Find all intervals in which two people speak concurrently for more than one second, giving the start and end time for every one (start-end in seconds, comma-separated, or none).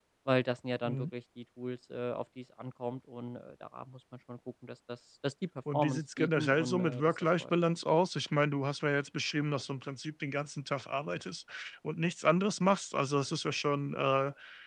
5.7-7.5